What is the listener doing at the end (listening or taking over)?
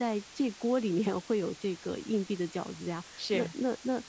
listening